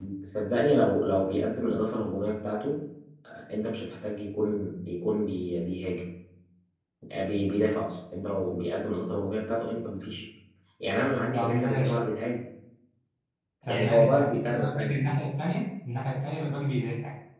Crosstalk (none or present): present